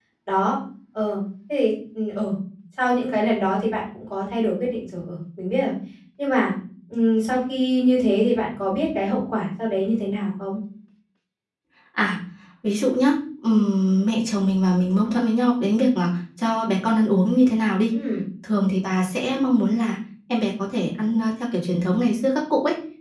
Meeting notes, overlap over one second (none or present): none